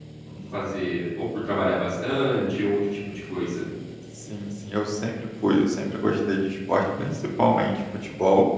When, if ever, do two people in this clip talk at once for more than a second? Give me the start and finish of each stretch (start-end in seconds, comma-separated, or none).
none